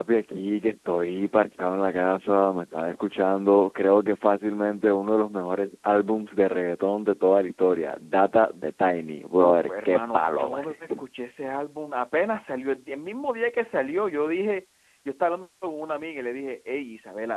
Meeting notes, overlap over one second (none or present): present